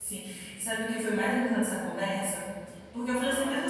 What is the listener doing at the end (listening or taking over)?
listening